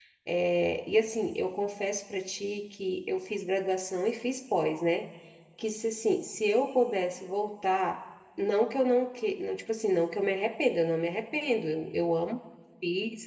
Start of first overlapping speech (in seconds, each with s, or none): none